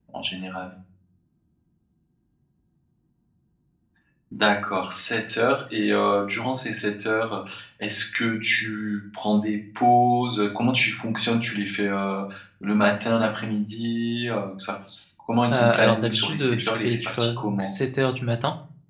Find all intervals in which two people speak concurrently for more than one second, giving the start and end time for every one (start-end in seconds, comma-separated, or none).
15.5-17.7